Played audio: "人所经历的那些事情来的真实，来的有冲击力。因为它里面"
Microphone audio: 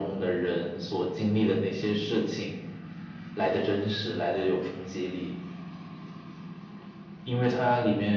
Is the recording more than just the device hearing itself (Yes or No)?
No